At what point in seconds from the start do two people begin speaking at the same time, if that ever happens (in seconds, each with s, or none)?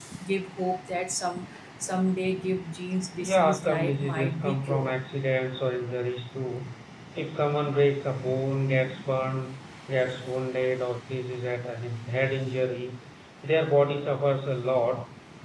3.2 s